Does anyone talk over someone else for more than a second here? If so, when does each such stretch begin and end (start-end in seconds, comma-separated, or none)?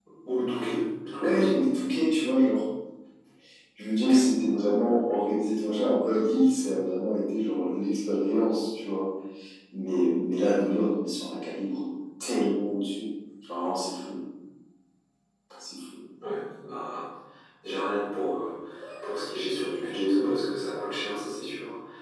none